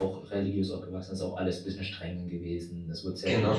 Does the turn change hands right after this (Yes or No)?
No